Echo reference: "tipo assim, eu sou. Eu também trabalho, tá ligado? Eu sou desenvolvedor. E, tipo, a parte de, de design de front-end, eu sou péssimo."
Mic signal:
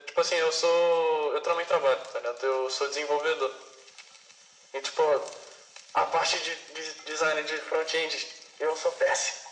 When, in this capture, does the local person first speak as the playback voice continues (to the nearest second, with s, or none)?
none